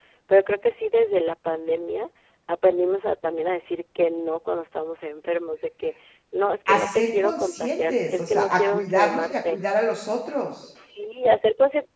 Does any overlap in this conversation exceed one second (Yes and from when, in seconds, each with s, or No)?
Yes, from 6.7 s